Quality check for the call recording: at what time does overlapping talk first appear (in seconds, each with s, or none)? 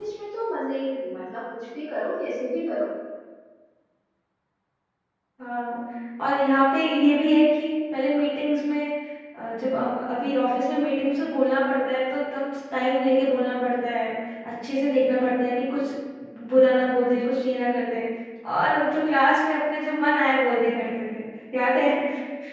none